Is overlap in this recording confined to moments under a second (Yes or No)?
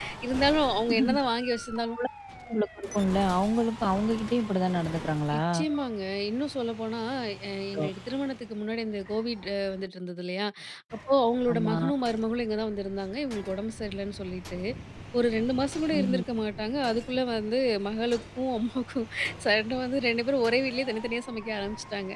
Yes